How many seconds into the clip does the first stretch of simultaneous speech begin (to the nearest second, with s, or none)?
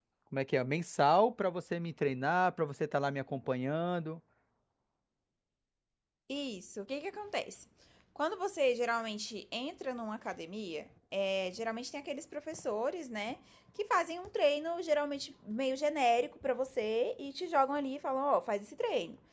none